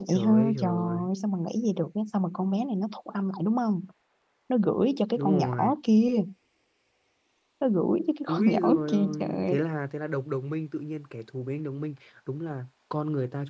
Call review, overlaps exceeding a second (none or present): present